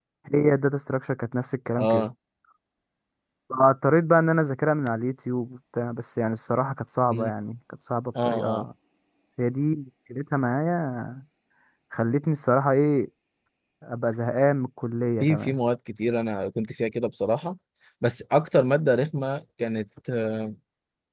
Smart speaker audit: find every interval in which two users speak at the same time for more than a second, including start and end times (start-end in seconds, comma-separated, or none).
none